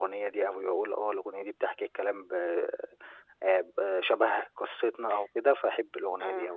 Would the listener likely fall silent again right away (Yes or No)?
No